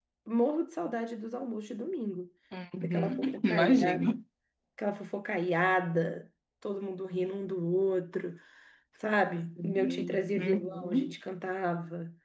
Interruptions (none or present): present